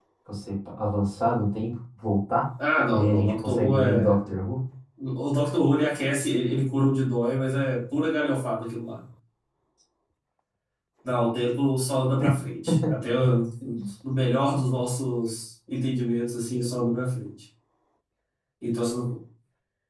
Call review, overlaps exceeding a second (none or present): present